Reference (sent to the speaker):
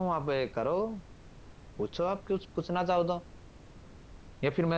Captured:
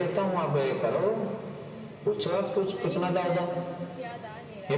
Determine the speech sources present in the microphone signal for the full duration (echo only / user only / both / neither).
both